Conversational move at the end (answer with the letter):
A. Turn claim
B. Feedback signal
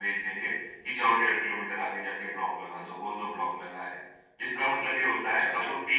B